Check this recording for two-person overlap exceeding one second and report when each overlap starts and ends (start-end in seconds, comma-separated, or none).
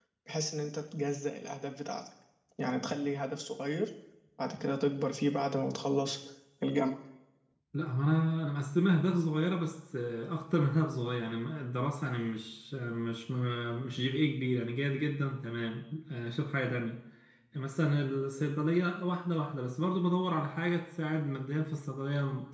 none